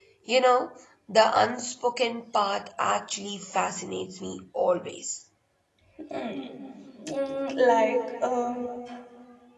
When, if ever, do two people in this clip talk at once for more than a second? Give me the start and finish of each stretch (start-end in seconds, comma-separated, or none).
none